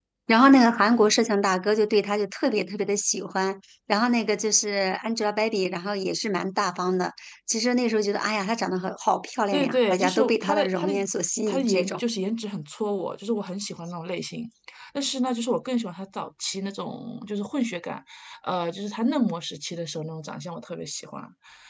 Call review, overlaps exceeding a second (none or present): present